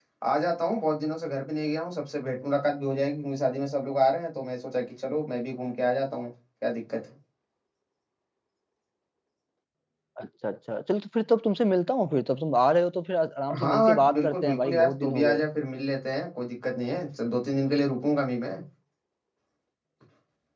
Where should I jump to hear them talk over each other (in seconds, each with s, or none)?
13.5 s